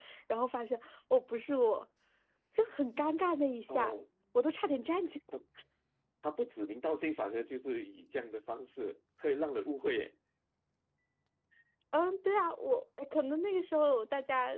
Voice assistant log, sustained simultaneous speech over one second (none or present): none